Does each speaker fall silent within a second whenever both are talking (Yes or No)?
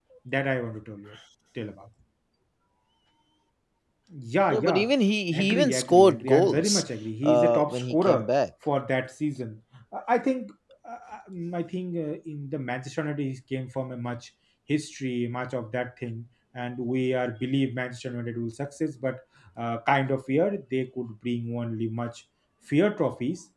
No